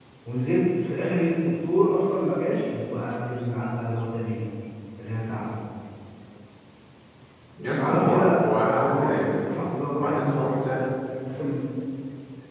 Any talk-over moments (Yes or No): Yes